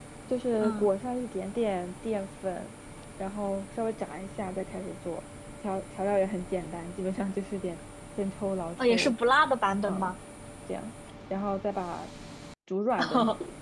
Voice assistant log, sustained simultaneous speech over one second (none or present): none